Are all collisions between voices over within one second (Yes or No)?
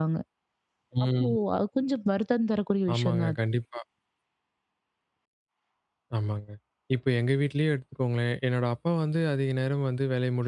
Yes